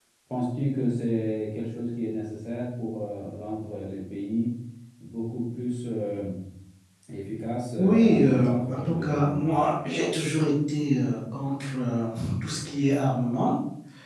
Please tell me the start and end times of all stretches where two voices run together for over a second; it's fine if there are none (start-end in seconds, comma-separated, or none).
7.8-9.4